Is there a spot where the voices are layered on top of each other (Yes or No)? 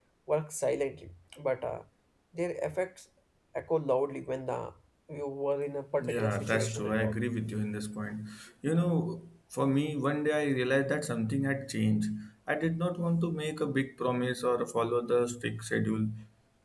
Yes